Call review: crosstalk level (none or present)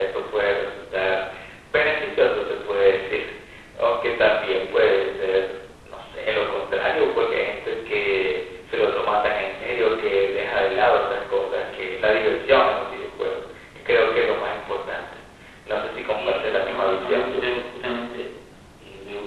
present